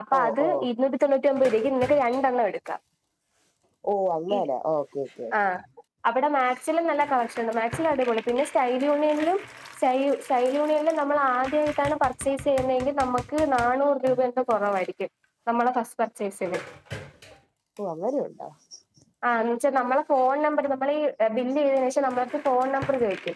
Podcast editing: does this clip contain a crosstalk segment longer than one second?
No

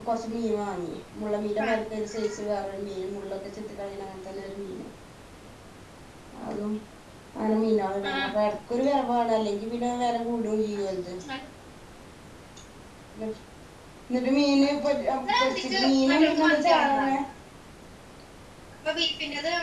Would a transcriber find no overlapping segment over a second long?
No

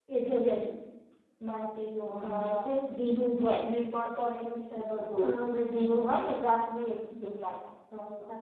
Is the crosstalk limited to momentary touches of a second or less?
Yes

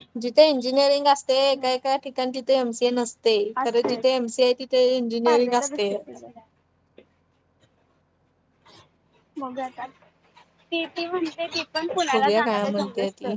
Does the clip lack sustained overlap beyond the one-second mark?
No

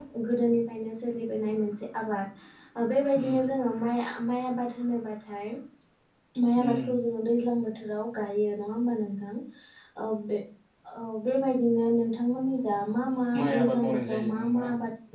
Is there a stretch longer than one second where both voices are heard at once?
Yes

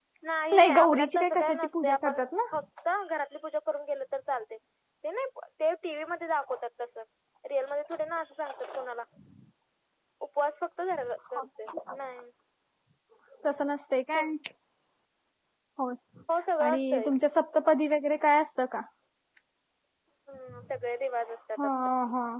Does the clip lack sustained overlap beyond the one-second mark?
No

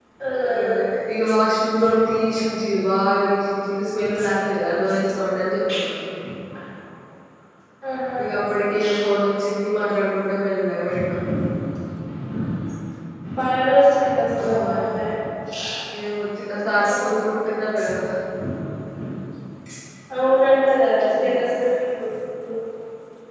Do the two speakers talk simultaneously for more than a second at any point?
No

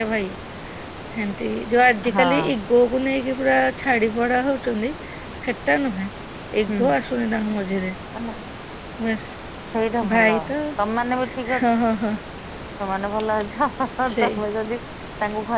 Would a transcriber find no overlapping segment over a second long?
Yes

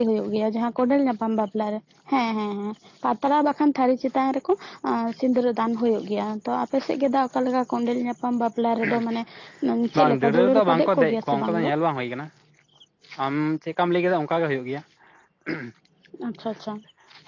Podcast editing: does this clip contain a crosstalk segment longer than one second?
Yes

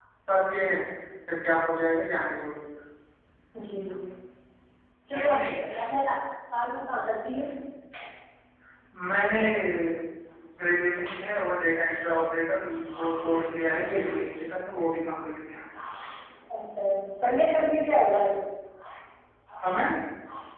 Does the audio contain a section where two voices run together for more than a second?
No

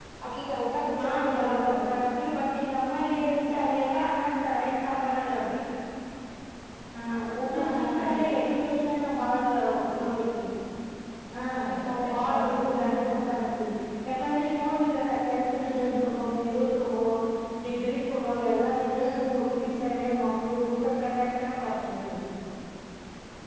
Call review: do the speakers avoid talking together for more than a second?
No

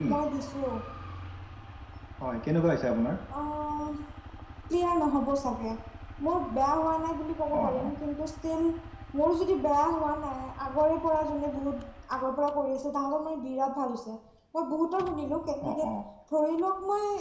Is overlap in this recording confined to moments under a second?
Yes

